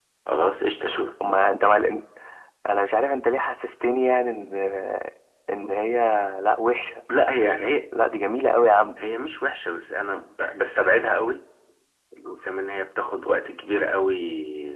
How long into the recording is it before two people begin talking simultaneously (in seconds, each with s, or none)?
none